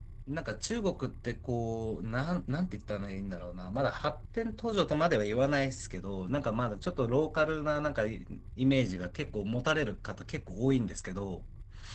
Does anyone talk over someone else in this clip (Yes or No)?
No